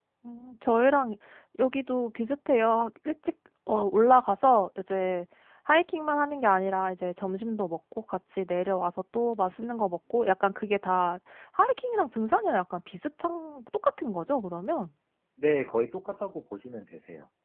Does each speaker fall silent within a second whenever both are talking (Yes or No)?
Yes